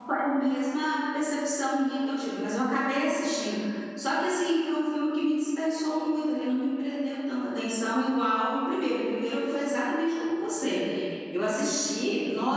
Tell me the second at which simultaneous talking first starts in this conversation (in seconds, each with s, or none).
none